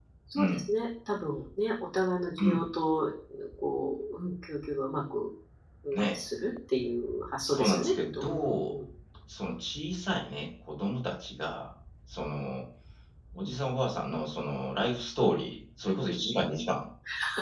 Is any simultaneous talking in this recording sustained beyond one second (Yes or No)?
Yes